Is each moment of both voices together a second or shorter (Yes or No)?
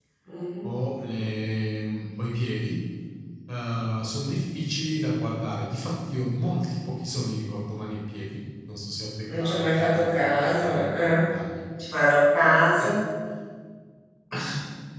No